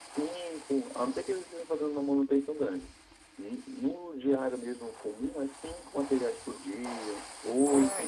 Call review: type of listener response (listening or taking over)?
listening